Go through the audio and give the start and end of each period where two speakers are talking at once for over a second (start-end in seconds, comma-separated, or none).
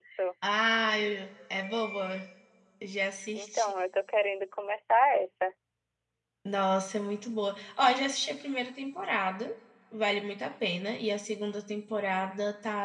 none